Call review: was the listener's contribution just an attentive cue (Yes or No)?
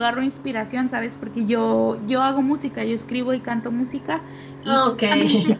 Yes